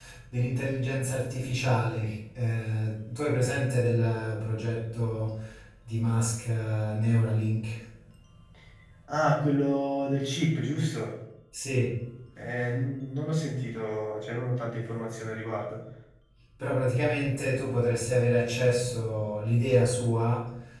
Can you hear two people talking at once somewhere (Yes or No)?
No